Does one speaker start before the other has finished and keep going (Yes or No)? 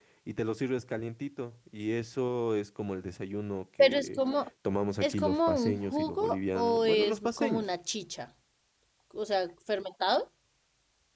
Yes